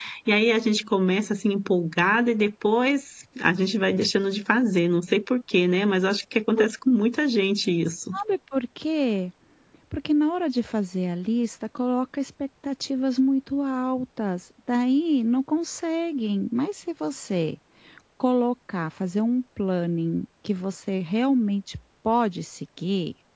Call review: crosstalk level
none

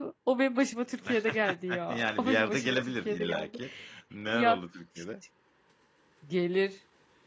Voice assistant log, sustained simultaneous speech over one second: present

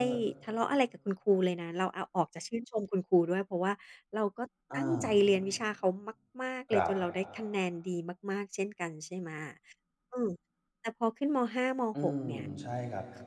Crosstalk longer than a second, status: none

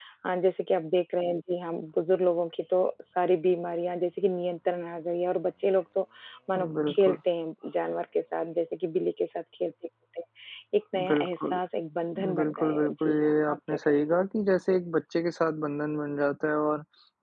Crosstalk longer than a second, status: present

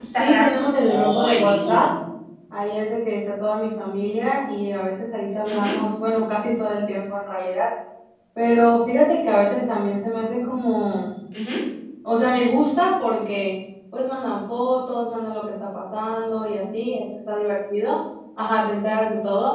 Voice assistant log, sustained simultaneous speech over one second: present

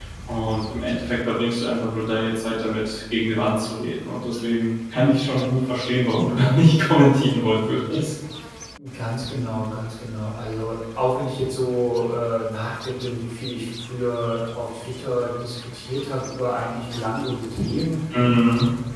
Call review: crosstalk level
none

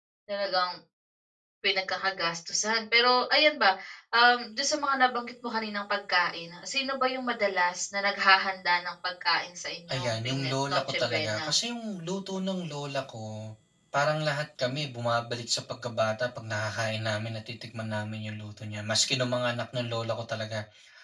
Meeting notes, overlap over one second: present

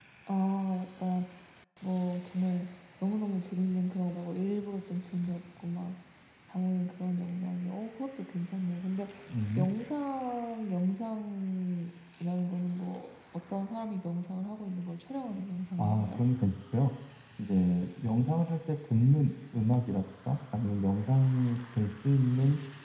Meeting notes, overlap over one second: none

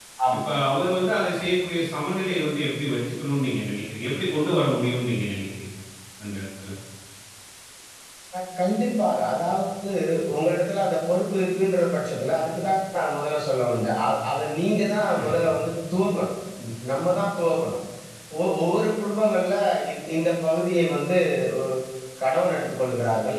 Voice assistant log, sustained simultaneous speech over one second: none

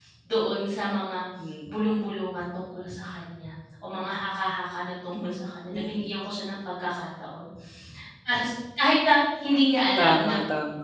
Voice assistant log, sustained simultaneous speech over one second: none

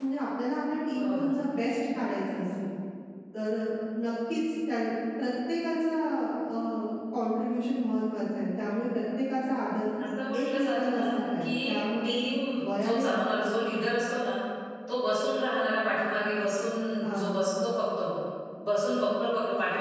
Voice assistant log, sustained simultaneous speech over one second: present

